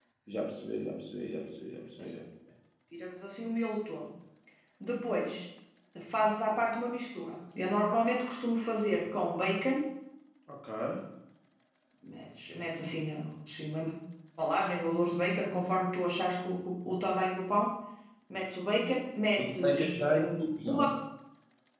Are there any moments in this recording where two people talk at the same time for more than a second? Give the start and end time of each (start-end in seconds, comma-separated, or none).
19.4-20.9